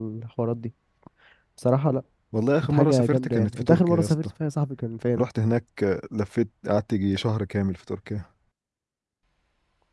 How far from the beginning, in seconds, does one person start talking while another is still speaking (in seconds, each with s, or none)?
2.6 s